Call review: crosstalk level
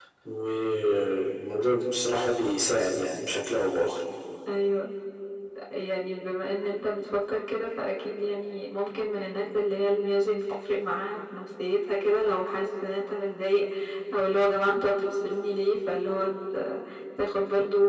none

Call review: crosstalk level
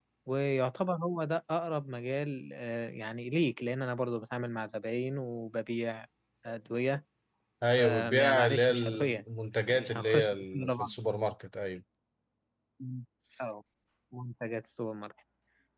present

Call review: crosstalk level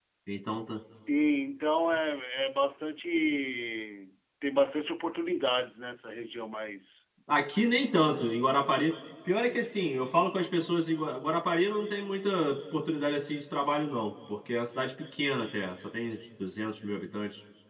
none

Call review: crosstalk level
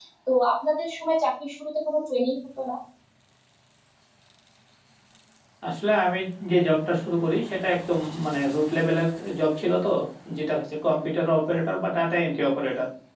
none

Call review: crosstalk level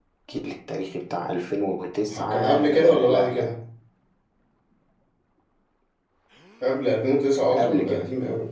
present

